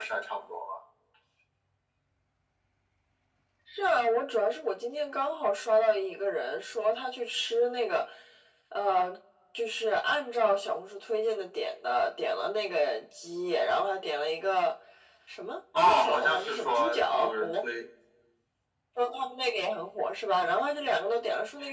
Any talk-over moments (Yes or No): Yes